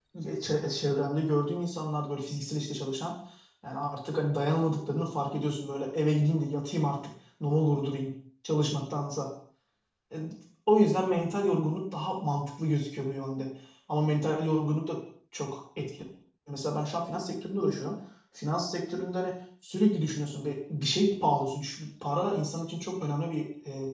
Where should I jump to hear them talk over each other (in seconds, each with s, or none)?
none